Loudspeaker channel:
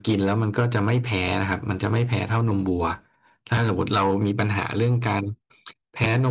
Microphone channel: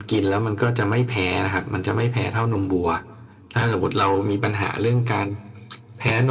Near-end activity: none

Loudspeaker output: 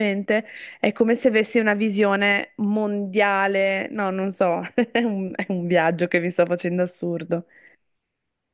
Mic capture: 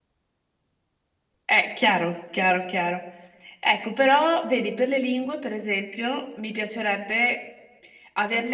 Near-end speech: present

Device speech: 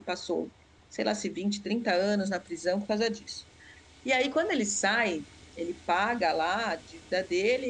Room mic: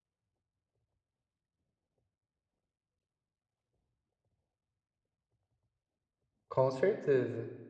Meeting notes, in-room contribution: present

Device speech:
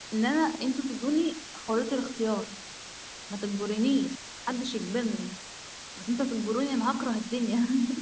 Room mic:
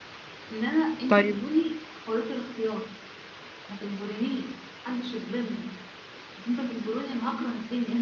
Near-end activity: present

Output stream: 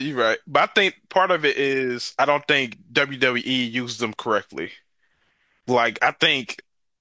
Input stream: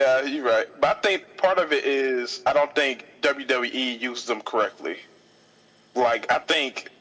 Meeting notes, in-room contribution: none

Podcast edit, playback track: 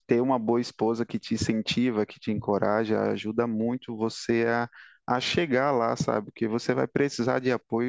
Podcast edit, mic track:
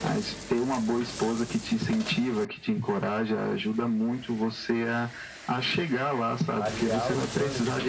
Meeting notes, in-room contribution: present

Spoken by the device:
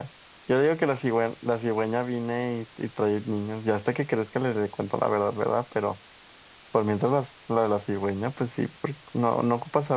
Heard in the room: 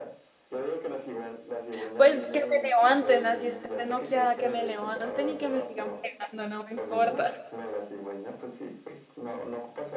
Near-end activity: present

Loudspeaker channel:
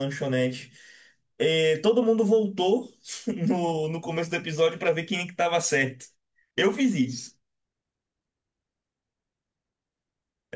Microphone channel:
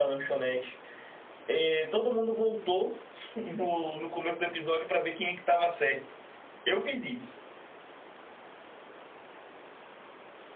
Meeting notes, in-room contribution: none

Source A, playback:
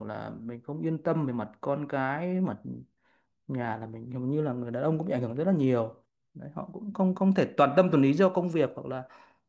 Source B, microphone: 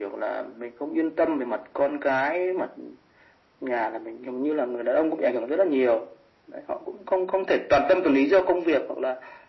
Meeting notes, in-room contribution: none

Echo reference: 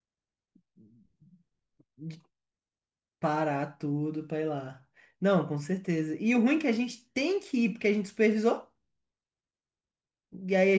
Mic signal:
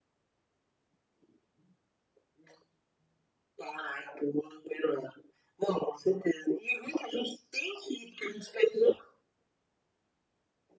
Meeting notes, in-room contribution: none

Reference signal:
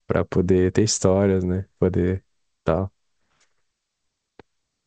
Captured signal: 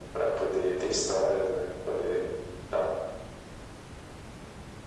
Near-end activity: none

